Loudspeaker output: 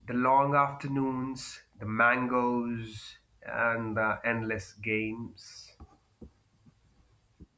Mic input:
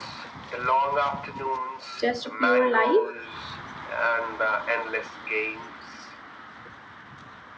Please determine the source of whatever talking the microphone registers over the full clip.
both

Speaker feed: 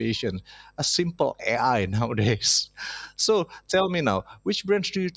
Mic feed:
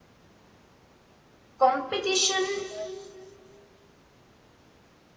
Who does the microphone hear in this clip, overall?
user only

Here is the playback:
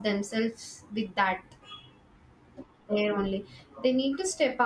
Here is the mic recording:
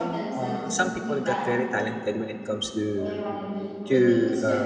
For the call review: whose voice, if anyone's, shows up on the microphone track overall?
both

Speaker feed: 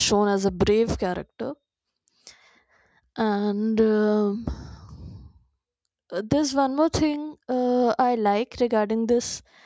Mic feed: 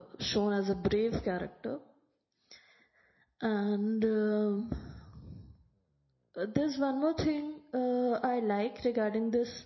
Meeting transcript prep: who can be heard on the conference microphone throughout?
echo only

